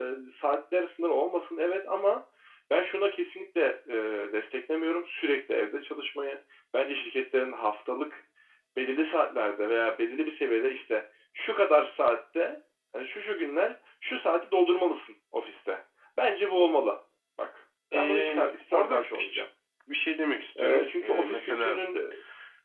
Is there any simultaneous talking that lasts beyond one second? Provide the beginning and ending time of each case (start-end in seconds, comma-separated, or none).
17.9-19.4, 20.6-21.8